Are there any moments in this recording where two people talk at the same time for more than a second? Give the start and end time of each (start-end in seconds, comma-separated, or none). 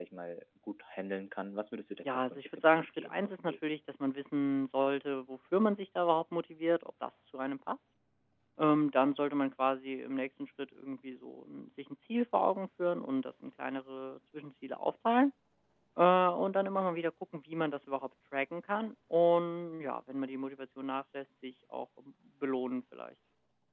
2.1-3.5